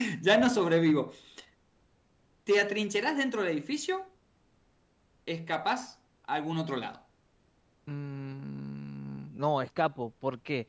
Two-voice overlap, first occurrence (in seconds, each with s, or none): none